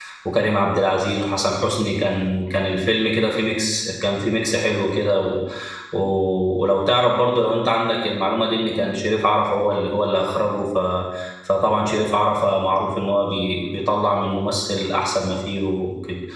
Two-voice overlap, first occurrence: none

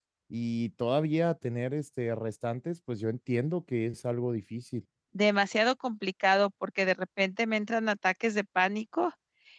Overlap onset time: none

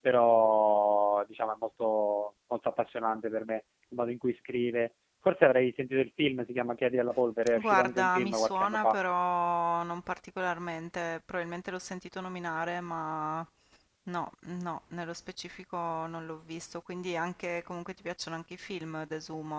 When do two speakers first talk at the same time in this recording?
7 s

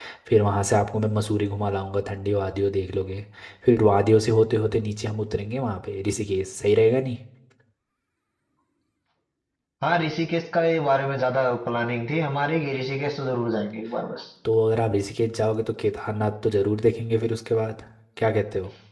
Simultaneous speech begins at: none

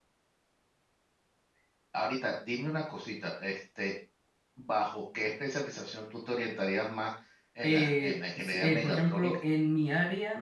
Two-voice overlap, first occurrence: 8 s

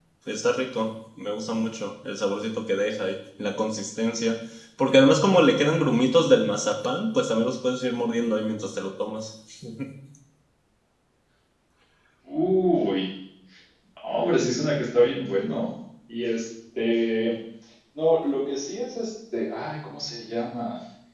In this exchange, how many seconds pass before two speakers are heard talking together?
none

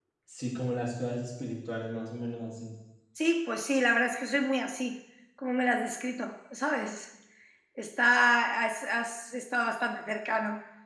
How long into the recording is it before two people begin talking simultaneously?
none

